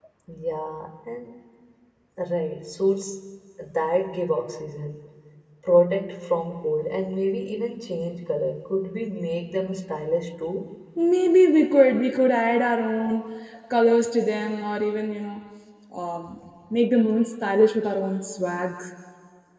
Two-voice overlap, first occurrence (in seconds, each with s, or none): none